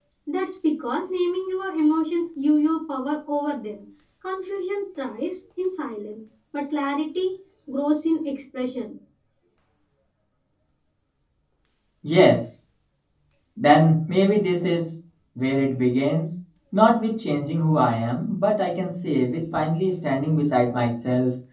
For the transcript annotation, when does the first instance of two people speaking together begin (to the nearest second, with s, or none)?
none